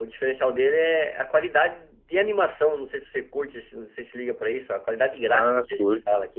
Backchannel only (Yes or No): No